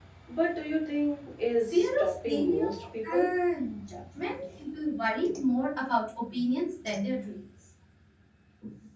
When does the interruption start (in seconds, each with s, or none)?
1.6 s